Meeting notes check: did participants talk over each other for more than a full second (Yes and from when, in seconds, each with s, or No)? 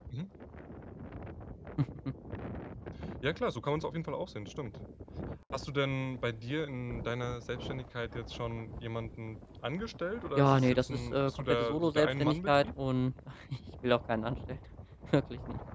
Yes, from 10.4 s